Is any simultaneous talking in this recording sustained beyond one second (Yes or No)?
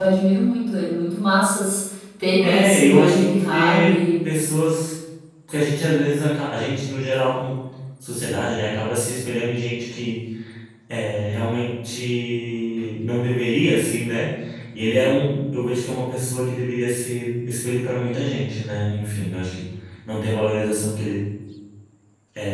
Yes